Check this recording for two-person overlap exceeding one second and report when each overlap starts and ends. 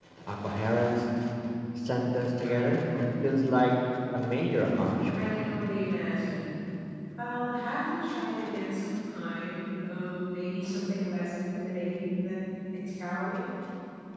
none

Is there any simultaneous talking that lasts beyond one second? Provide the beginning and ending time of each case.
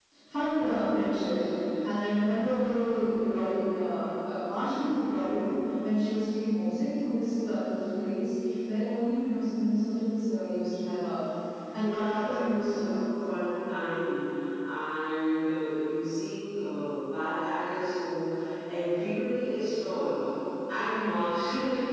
11.7-12.9

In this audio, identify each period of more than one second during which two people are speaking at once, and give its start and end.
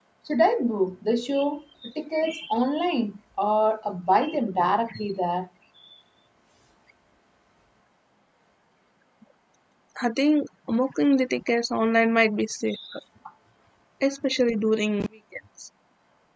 none

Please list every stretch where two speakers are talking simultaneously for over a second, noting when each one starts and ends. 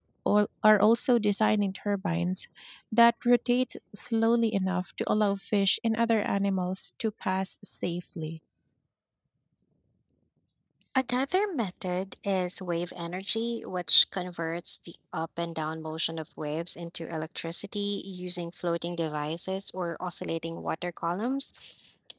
none

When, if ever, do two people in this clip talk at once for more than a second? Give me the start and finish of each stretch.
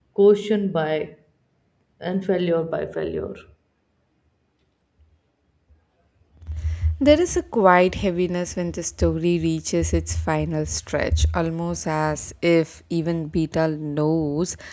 none

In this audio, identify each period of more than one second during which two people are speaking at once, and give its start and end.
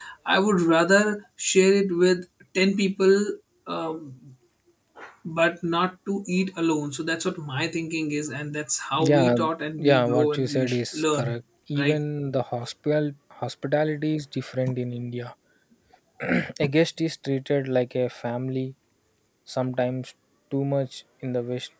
9.8-11.4

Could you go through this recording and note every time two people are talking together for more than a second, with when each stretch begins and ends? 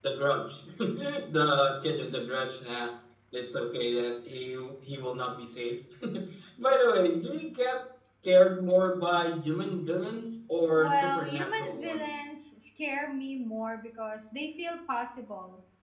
10.8-12.2

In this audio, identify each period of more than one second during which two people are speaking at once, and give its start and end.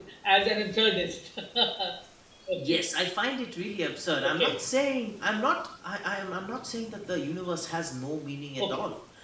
none

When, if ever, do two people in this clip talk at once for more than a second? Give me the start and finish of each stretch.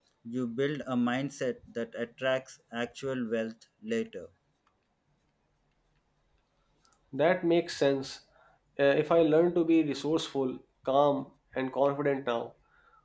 none

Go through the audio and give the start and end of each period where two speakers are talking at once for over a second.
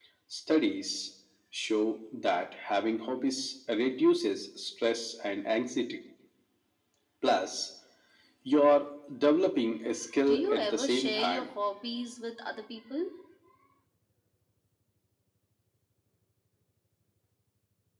10.3-11.5

